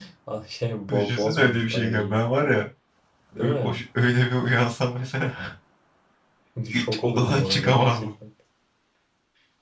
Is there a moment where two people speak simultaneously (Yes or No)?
Yes